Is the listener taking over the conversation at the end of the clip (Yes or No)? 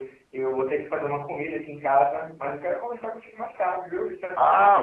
Yes